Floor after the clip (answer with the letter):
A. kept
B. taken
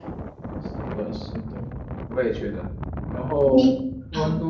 A